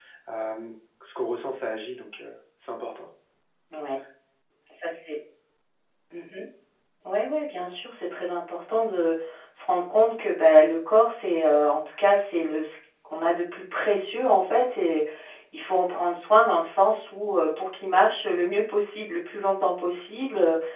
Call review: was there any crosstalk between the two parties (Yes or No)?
No